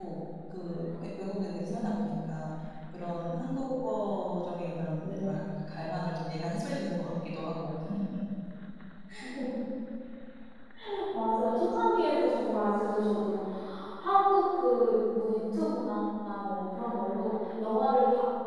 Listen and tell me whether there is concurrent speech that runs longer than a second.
No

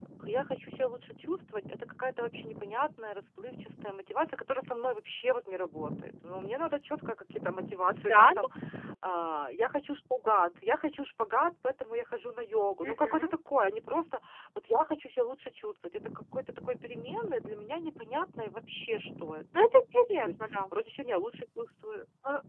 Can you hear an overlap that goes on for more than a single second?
No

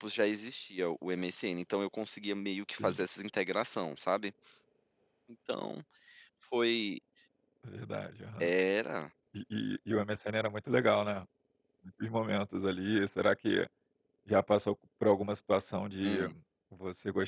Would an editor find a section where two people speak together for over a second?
No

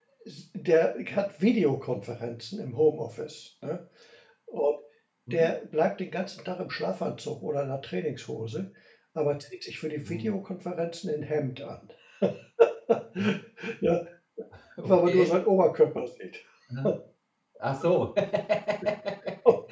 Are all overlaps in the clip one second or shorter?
Yes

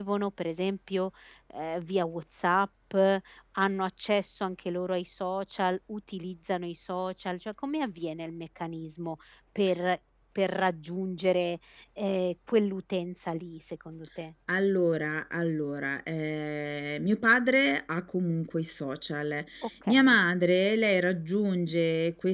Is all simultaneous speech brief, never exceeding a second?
Yes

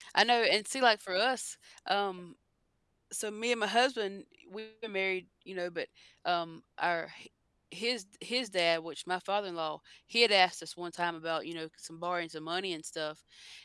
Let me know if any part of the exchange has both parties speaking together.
No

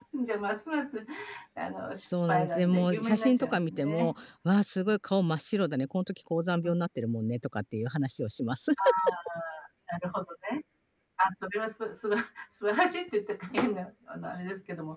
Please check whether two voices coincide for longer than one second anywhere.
Yes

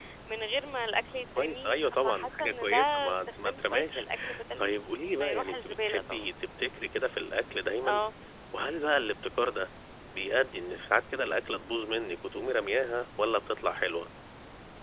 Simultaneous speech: Yes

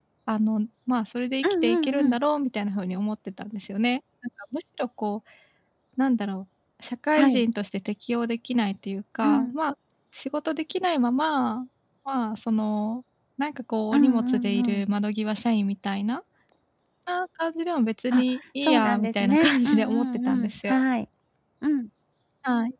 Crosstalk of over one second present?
Yes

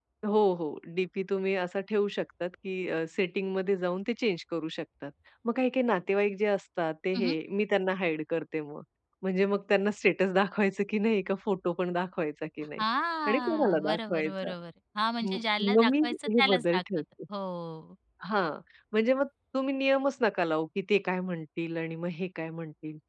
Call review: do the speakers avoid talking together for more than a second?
No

